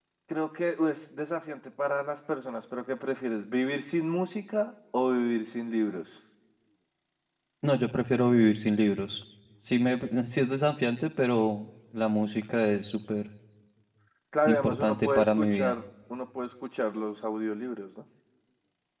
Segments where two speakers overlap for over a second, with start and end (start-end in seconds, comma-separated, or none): 14.4-15.8